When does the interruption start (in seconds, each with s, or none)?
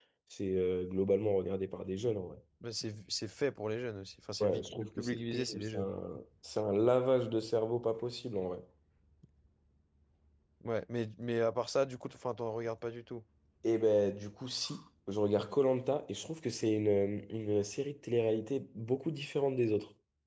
4.4 s